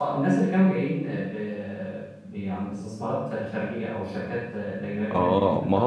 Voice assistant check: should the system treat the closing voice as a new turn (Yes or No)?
Yes